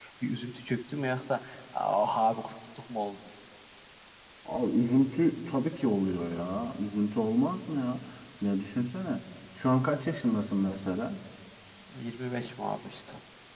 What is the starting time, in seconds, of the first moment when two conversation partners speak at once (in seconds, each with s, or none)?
none